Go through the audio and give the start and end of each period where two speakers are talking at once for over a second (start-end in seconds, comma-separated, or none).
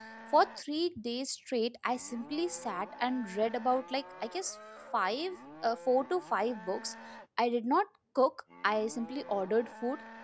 none